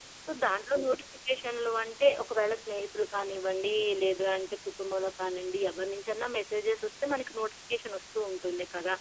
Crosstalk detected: No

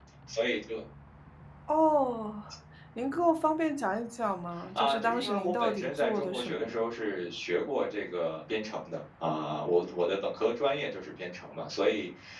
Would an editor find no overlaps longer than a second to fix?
No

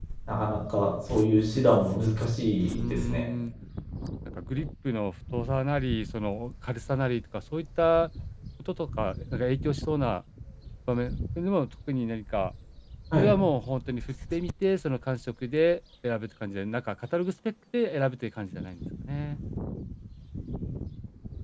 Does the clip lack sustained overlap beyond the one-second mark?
Yes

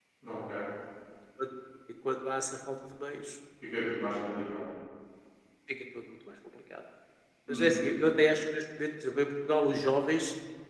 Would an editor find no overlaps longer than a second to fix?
Yes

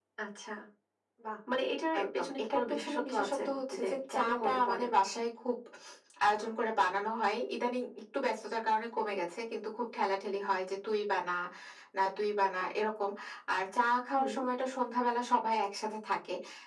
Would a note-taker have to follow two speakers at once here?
Yes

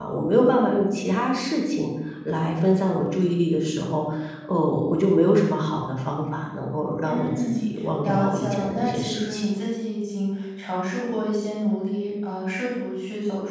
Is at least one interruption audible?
Yes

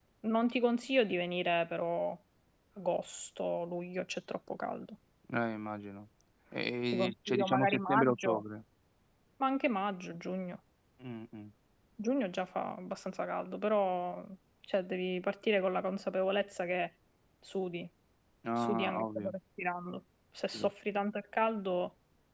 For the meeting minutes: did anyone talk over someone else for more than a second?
Yes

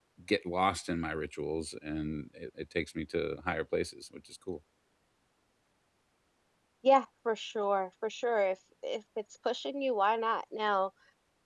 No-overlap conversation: Yes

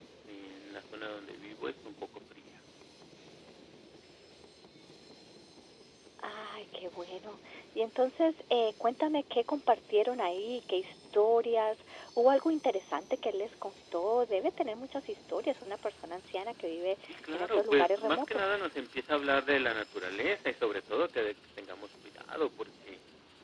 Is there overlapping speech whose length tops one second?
Yes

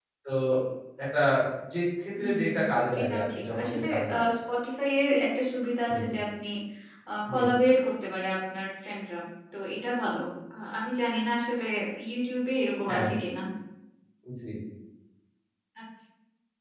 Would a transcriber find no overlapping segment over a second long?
No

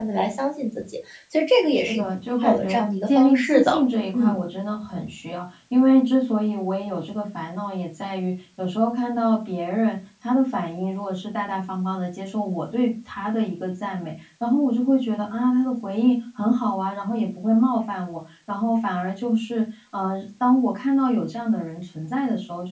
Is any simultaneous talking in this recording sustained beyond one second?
Yes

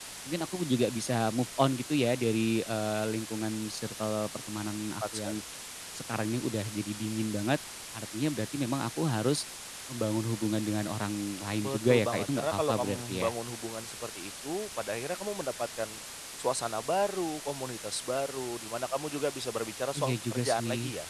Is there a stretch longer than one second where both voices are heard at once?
Yes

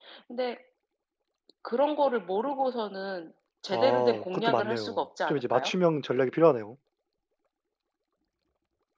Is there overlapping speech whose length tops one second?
Yes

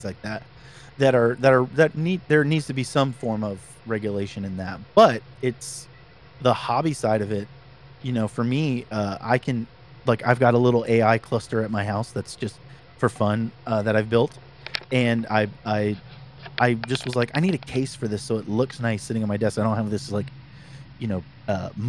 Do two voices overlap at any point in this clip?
No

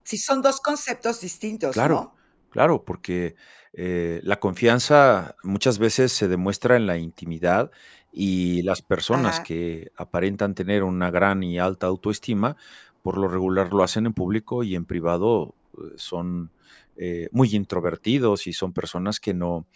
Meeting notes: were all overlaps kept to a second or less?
Yes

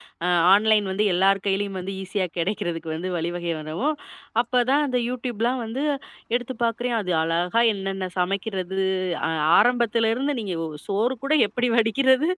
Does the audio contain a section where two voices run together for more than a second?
No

